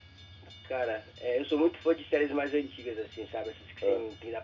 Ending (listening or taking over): listening